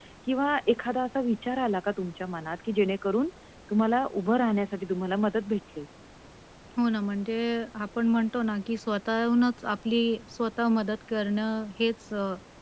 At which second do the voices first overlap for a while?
none

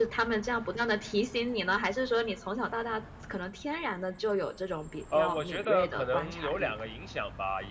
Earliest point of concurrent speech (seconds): 5 s

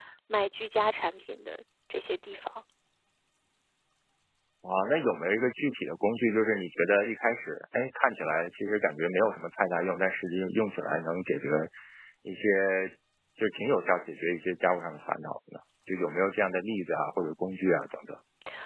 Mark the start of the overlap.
none

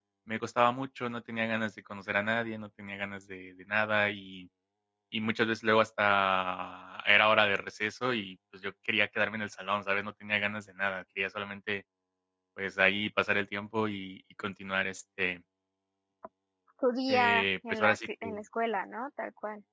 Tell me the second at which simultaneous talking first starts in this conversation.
17 s

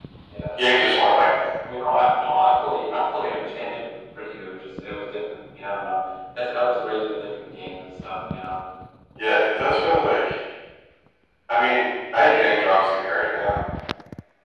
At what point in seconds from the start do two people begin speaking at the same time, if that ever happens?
none

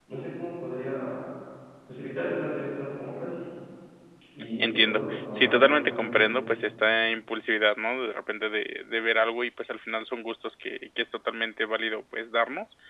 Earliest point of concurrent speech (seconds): 5 s

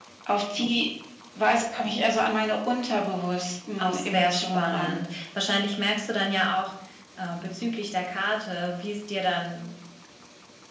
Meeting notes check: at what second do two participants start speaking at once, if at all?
4 s

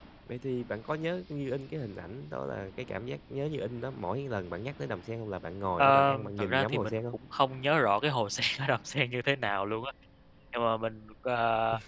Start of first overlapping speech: 6 s

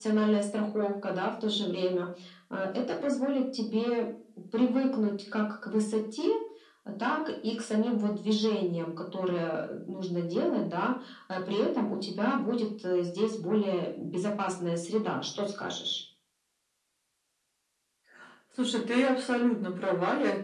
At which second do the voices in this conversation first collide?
none

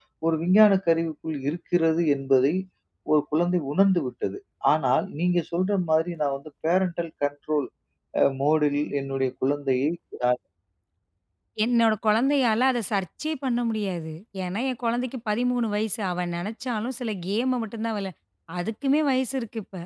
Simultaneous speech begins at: none

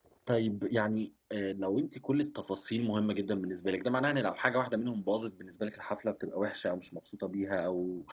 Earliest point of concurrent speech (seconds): none

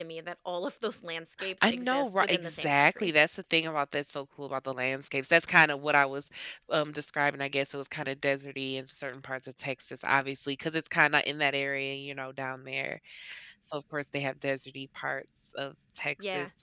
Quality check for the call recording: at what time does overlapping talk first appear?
2 s

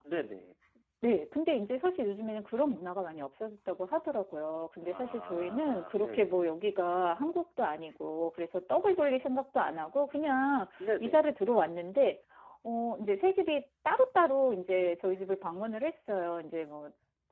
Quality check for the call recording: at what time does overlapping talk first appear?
5 s

